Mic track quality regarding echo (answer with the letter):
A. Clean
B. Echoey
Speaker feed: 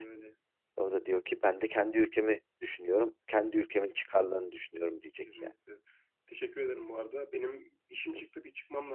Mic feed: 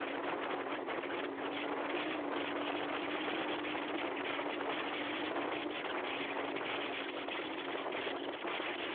A